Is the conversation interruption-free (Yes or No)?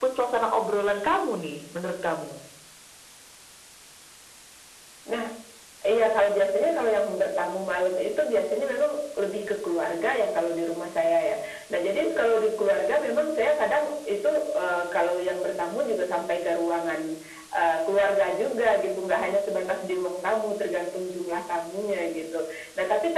Yes